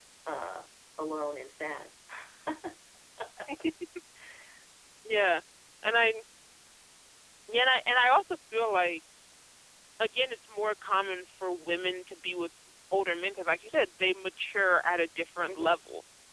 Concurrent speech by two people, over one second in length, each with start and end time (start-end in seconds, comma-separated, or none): none